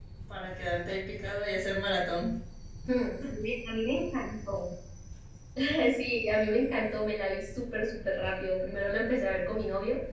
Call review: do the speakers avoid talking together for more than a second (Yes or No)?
Yes